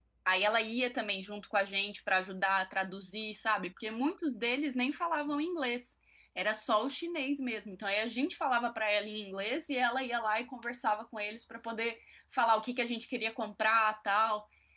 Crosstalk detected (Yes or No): No